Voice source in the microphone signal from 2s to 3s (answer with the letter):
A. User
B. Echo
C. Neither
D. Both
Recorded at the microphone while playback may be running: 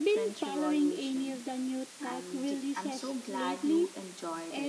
D